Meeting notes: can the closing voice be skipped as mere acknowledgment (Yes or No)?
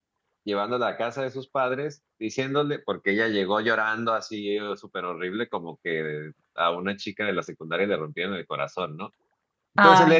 Yes